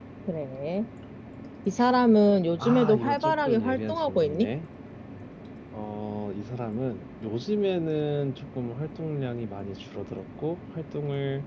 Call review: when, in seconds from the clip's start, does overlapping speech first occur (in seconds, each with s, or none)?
2.6 s